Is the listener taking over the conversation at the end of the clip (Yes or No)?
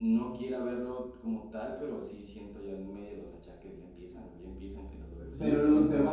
Yes